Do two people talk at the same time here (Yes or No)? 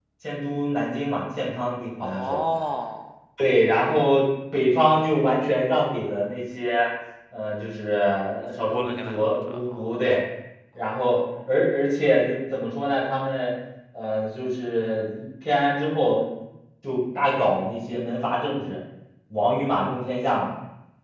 Yes